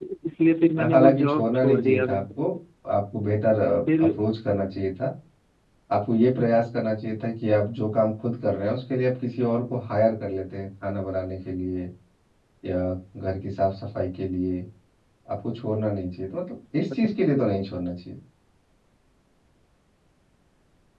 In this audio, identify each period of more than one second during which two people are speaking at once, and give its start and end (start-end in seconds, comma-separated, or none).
0.9-2.2